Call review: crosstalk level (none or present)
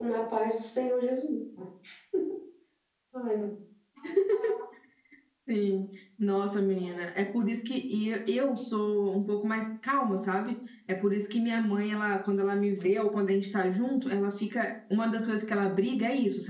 none